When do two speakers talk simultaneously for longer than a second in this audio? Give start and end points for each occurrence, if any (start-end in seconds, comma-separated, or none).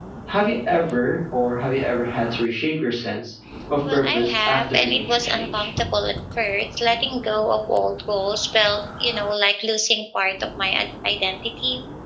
3.9-5.7